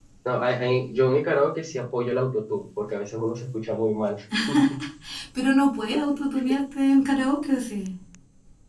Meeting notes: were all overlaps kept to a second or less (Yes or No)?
Yes